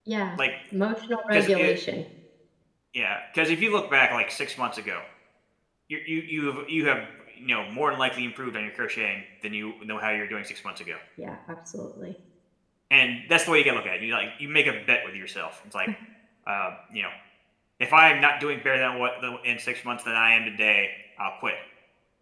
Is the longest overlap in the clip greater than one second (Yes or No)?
No